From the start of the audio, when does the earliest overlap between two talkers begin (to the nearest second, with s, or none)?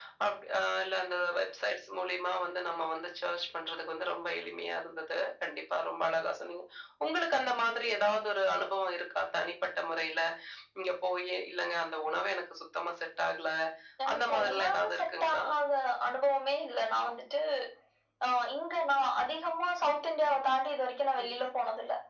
14 s